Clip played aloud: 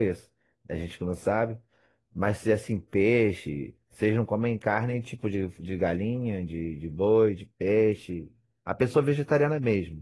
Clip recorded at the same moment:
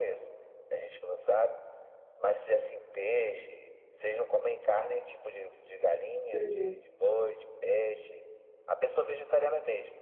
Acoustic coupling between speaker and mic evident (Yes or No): Yes